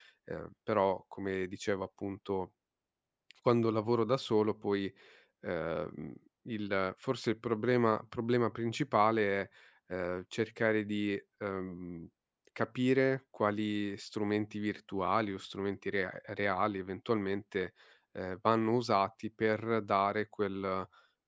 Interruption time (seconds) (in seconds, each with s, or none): none